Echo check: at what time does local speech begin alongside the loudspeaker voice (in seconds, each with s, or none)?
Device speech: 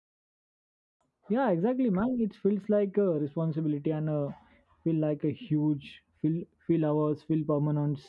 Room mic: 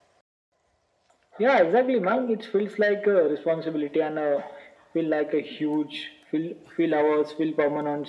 none